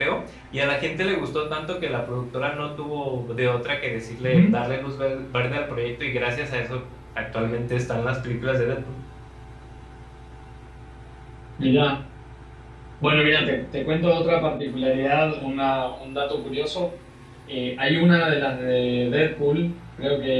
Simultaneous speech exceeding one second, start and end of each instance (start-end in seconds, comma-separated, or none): none